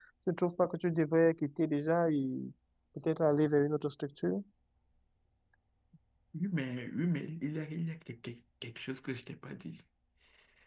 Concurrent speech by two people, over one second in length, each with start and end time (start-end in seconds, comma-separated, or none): none